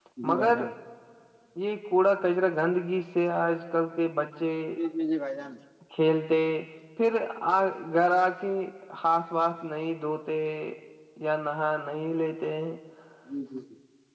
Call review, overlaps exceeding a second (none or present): none